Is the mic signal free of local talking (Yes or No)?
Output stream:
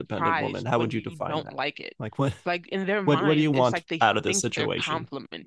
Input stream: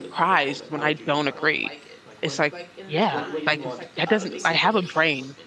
No